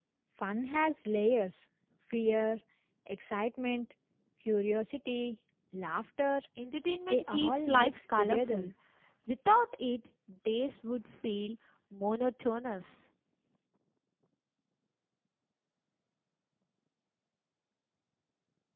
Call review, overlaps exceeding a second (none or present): present